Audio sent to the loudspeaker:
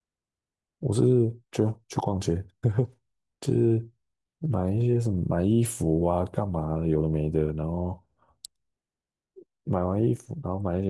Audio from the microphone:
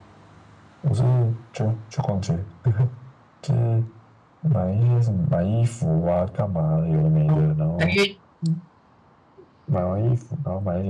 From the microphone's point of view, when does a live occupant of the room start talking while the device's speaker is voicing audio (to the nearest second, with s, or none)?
7 s